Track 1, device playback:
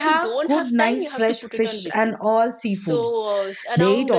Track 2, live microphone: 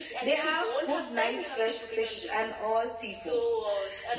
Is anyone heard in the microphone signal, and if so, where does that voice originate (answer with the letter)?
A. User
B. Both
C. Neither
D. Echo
D